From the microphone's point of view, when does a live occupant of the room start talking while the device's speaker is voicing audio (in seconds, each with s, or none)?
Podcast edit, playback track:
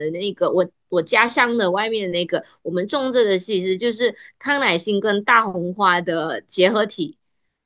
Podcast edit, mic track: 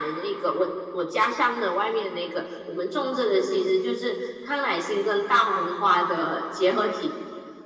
none